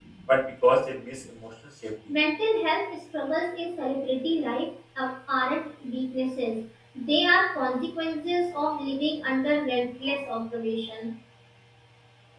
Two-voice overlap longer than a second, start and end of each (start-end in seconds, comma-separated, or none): none